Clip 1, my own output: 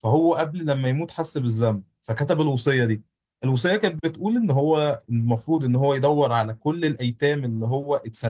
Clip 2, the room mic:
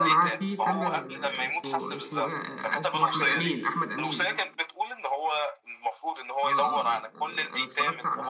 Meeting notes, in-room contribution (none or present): present